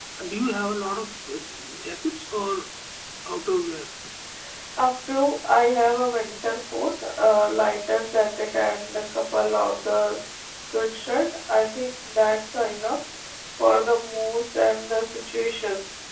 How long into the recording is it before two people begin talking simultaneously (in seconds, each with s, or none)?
none